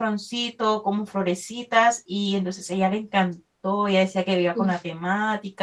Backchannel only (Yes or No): Yes